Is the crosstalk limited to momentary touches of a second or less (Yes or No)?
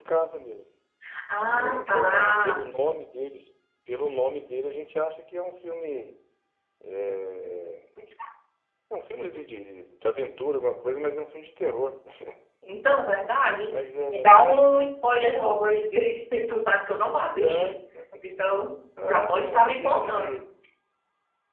No